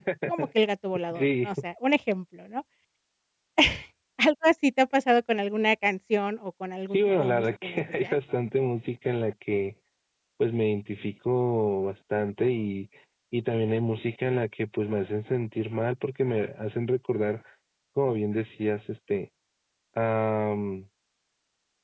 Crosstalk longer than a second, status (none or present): present